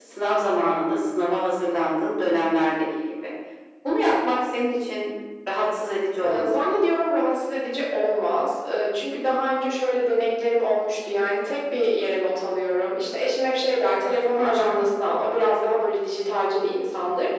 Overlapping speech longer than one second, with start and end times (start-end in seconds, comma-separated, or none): none